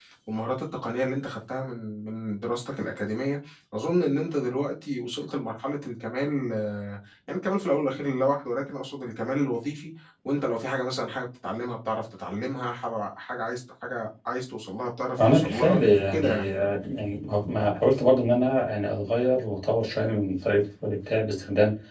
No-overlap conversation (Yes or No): No